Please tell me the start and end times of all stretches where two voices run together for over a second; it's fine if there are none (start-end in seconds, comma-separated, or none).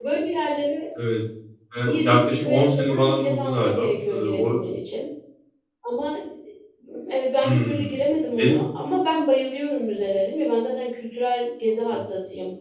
1.8-4.6